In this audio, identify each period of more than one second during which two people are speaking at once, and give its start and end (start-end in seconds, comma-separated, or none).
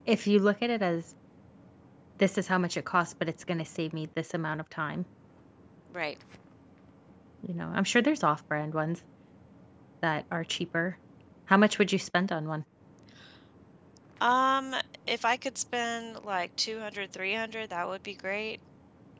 none